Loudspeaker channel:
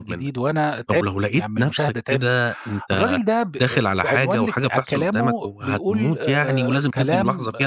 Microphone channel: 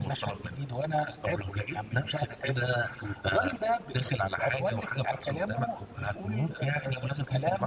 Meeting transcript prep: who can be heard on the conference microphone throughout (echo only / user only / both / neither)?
echo only